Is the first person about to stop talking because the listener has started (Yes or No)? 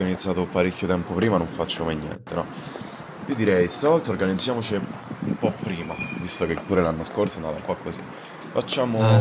Yes